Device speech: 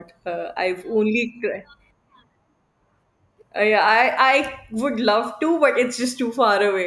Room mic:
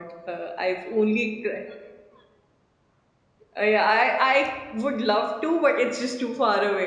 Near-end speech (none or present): none